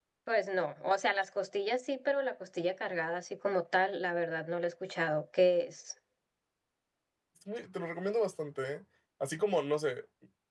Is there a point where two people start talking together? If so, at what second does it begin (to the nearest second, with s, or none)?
none